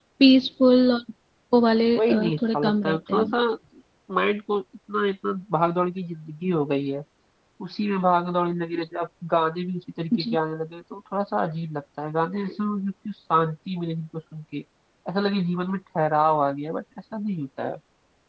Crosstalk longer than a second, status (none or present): present